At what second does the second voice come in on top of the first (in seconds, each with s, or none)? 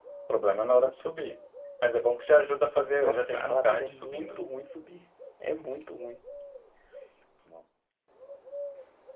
3.0 s